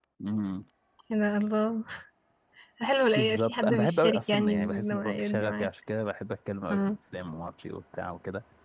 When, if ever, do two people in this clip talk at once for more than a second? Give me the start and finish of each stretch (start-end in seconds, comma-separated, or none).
3.2-5.7